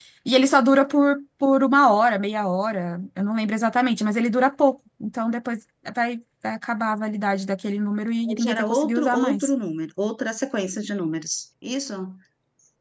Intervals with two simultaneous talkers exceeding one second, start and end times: 8.3-9.5

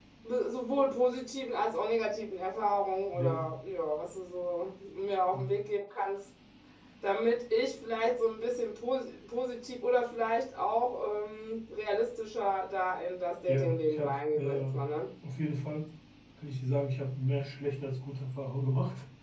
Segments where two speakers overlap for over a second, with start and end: 13.5-14.9

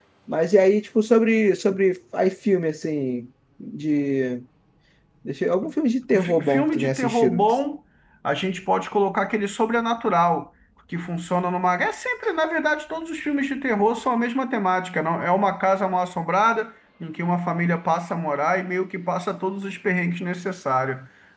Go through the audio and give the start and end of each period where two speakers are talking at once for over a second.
6.2-7.4

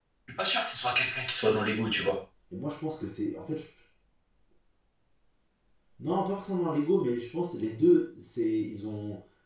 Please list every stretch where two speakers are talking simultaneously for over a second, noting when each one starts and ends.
none

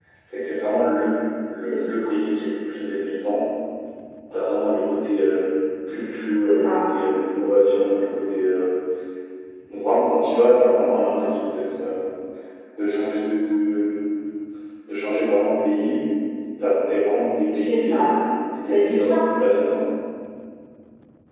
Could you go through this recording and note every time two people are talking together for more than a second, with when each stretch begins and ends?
none

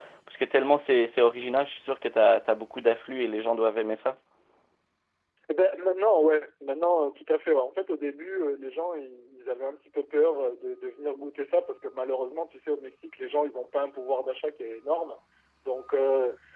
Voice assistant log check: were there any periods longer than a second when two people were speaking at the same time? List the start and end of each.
none

